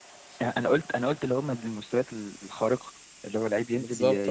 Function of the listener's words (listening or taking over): listening